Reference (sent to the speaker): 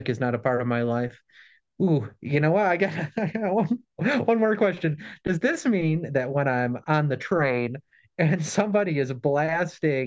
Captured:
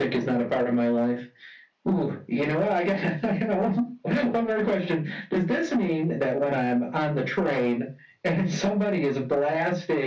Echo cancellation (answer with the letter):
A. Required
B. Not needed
A